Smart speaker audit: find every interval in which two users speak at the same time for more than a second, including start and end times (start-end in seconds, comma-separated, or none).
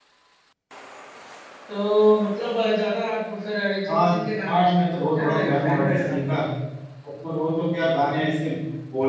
4.5-6.6